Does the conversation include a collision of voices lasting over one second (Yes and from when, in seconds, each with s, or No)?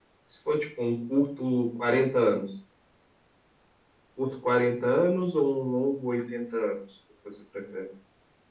No